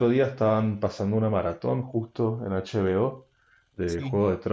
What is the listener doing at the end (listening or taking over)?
listening